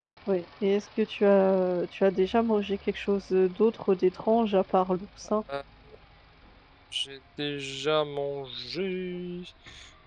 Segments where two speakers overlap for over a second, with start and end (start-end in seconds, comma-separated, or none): none